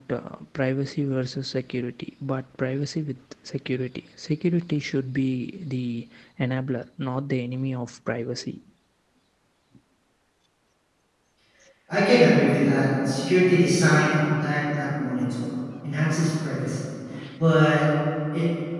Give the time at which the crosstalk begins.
none

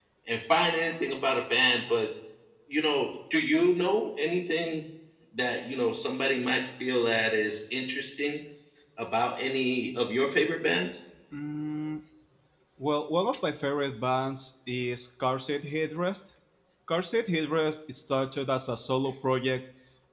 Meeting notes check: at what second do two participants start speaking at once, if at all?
none

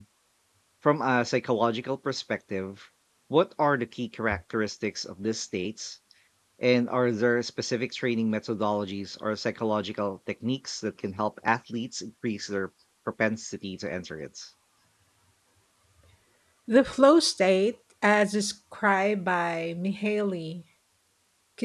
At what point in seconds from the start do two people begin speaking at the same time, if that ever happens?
none

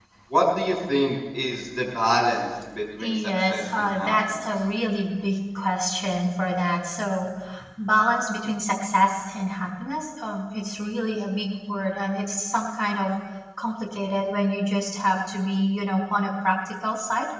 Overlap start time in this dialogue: 3 s

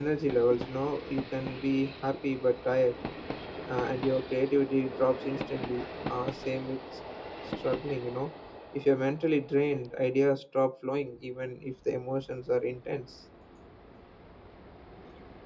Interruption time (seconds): none

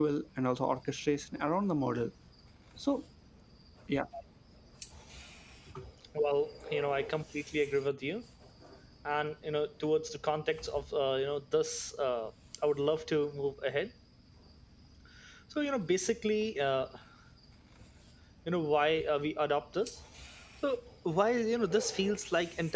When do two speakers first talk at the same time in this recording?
none

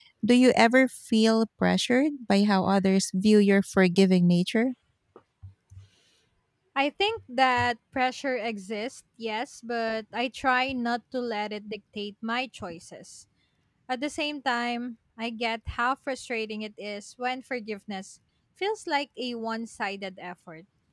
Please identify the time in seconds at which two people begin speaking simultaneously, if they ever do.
none

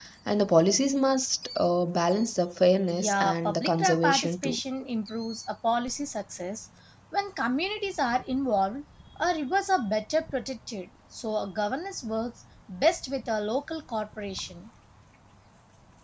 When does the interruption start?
3 s

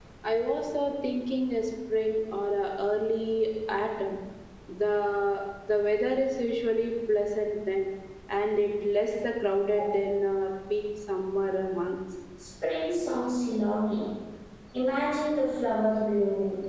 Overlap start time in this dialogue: none

